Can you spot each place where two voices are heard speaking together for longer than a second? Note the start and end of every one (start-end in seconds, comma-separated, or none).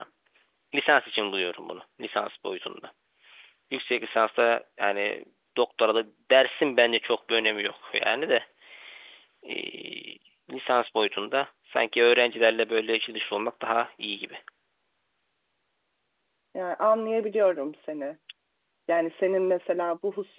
none